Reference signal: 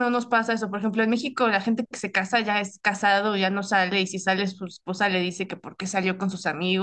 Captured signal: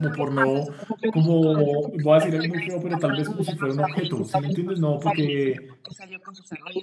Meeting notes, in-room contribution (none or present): present